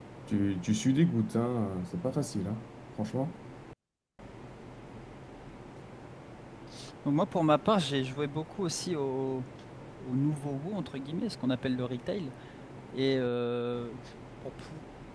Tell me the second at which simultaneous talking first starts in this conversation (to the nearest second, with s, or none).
none